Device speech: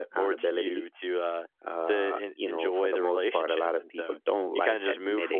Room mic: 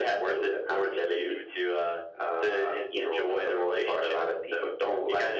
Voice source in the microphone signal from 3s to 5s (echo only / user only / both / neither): echo only